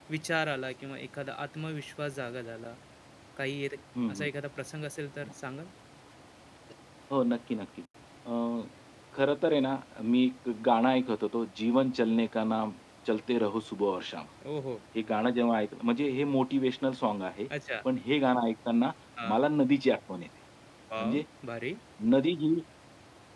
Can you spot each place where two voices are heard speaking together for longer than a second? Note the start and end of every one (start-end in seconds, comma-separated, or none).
none